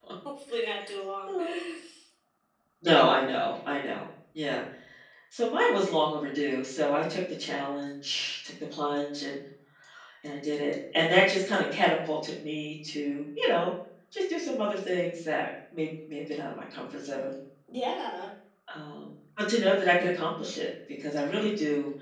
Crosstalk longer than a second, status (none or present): none